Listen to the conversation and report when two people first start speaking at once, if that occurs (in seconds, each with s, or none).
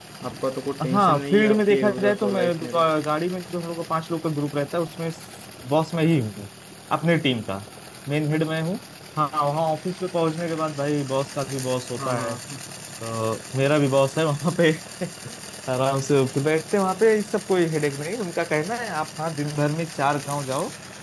0.9 s